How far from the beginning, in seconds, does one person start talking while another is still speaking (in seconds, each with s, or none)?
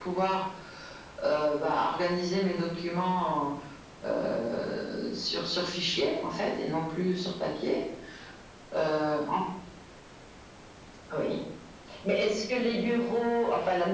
none